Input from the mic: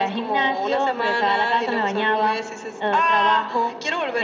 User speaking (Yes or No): No